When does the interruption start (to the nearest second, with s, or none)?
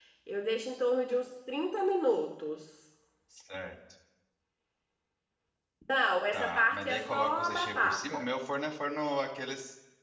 6 s